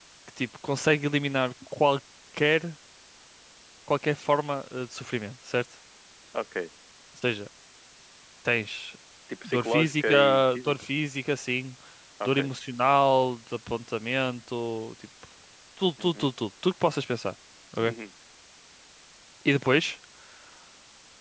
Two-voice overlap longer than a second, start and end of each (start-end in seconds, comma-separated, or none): 9.4-10.7